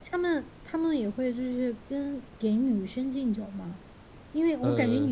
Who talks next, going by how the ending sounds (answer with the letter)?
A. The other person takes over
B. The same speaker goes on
B